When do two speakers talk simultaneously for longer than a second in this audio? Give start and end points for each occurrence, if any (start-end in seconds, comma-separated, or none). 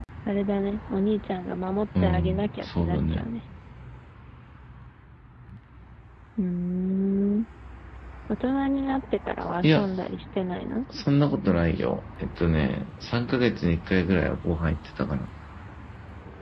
2.0-3.3